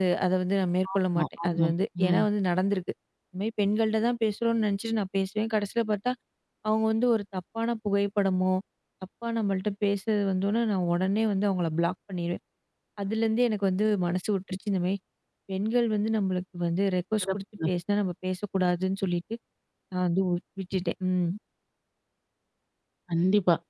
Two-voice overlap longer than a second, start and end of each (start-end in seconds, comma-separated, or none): 0.9-2.2